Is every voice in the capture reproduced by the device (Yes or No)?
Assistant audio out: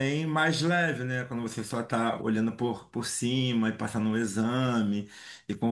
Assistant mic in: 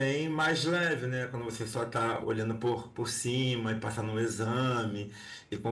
Yes